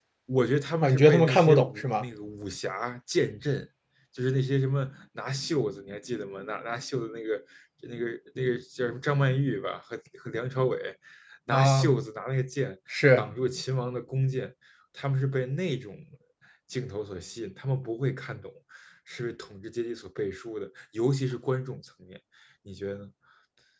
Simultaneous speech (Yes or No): Yes